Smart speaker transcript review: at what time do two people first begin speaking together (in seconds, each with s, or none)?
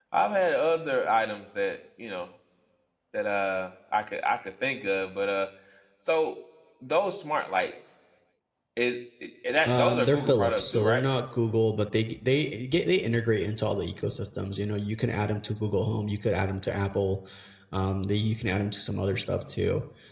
9.6 s